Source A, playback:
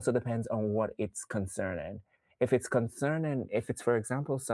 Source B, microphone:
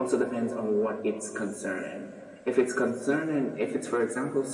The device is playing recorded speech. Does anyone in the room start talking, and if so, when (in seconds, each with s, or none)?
none